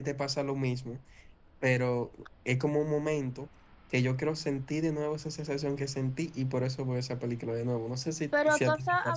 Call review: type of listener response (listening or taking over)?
taking over